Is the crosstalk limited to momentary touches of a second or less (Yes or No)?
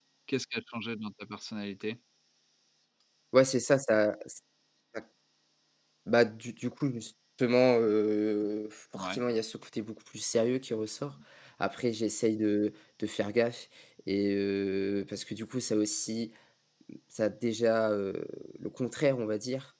Yes